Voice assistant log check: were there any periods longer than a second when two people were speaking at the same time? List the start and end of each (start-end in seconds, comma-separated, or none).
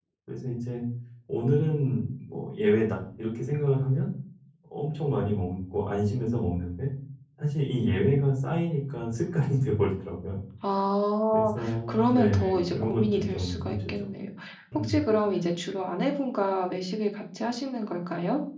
11.3-13.9